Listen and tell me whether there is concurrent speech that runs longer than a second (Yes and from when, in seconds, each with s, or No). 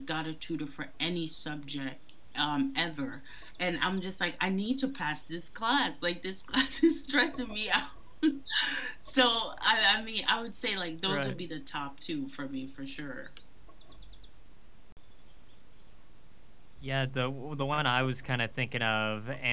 No